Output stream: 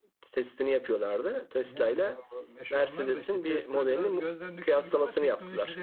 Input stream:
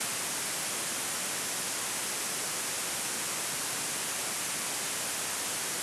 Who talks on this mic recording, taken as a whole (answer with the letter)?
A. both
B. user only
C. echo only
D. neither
D